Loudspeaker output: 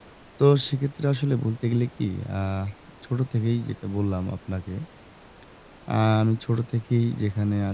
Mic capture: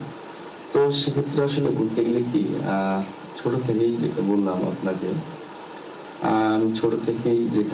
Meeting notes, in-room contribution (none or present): none